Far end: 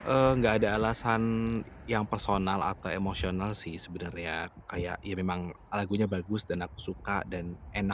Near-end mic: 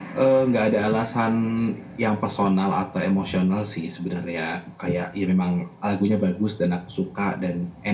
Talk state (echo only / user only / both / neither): echo only